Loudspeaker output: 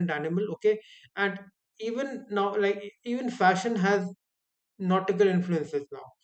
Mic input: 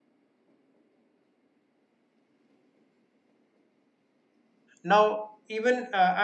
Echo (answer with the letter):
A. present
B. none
B